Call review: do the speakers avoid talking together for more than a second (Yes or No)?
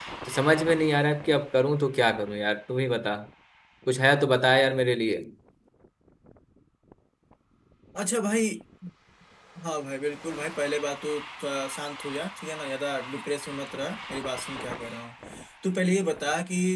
Yes